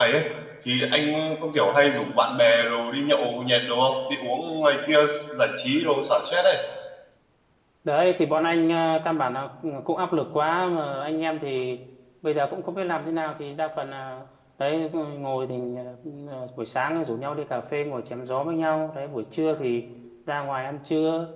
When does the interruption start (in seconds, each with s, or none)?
none